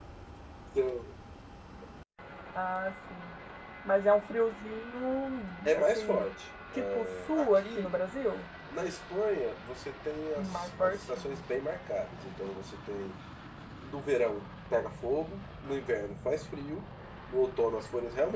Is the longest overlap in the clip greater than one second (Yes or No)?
Yes